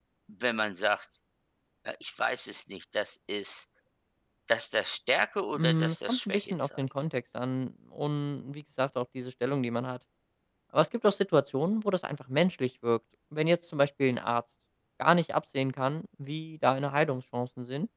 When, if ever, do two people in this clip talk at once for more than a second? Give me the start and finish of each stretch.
5.5-6.8

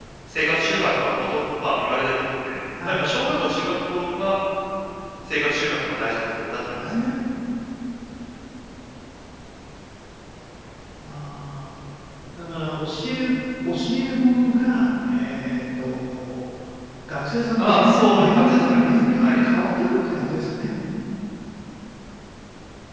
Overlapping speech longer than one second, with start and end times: 17.6-19.4

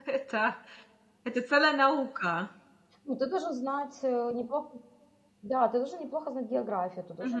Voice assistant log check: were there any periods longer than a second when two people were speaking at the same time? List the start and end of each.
none

